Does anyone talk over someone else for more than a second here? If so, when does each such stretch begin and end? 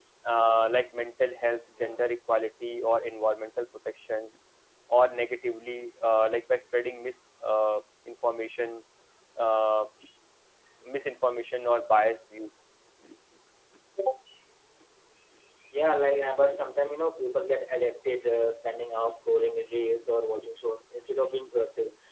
none

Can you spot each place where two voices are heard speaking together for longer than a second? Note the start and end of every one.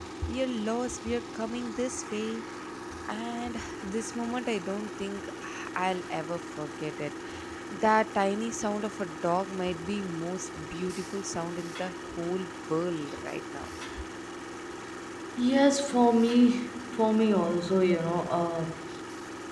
none

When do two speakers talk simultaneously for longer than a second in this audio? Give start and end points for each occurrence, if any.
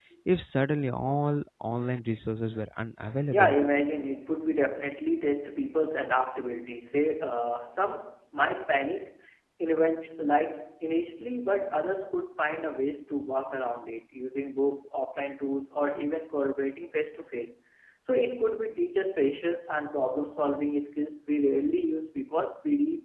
none

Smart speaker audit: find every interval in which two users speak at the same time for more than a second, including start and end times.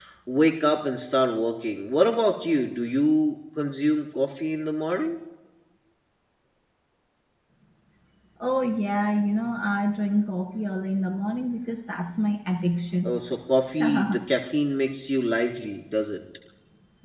none

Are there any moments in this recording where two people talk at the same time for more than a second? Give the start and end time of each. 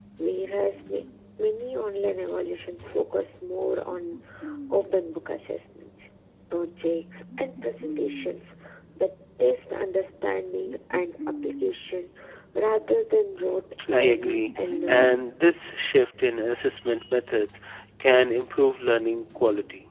13.9-15.2

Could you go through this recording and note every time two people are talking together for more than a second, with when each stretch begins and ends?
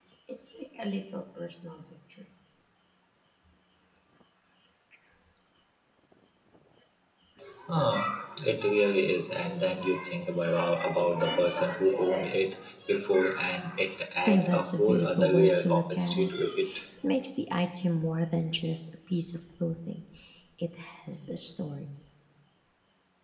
14.2-16.3

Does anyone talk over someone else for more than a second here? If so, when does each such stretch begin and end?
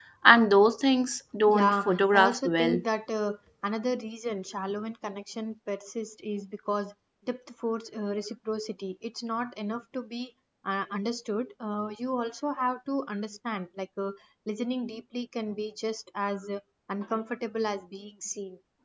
1.5-2.8

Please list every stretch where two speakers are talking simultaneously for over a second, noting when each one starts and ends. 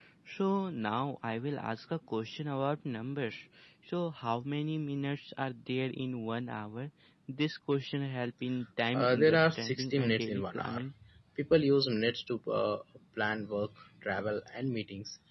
8.9-10.8

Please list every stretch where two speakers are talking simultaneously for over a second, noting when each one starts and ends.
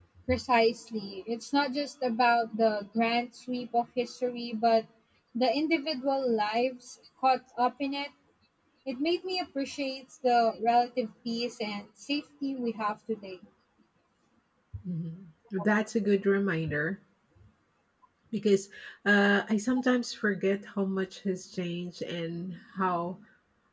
none

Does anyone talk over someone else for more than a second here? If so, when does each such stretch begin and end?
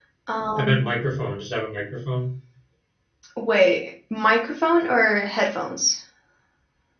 none

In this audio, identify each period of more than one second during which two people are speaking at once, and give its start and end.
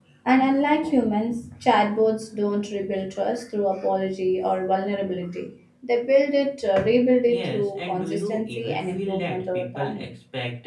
7.2-10.1

